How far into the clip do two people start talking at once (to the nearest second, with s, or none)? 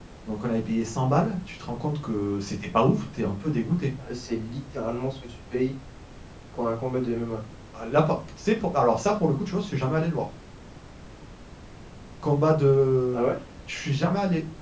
none